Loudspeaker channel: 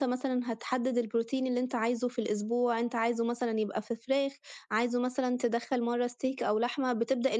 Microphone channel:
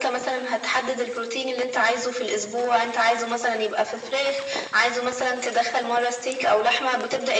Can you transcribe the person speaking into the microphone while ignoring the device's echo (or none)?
none